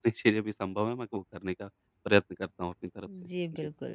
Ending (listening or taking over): taking over